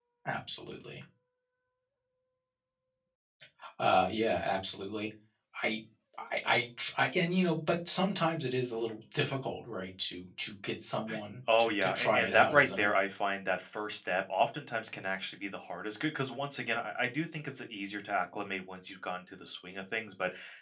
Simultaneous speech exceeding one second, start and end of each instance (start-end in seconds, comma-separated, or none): 11.6-12.9